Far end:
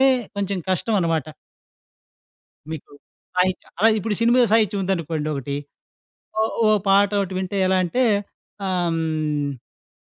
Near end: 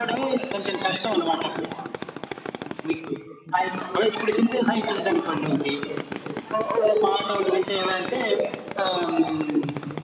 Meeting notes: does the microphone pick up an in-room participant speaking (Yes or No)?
No